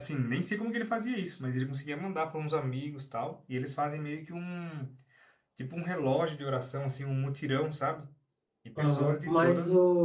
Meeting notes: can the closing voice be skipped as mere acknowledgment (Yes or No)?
No